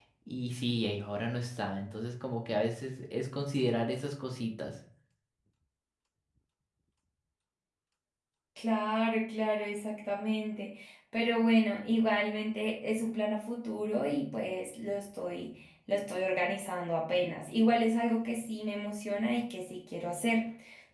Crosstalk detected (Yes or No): No